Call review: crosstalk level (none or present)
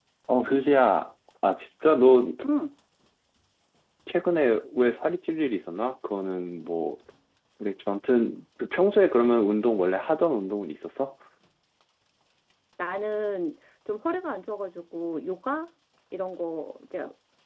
none